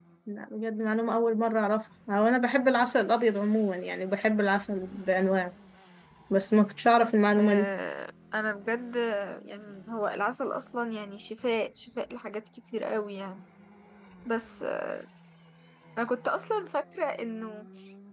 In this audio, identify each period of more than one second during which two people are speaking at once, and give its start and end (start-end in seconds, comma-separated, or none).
none